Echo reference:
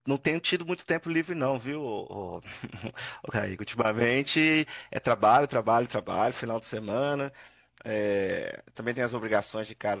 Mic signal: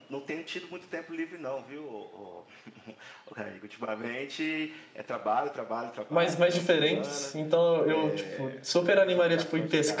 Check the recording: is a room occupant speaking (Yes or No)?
Yes